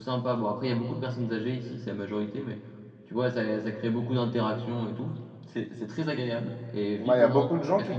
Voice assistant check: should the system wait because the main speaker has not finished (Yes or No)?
No